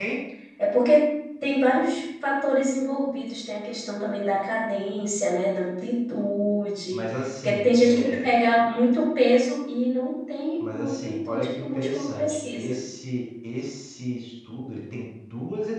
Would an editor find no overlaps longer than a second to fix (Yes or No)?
No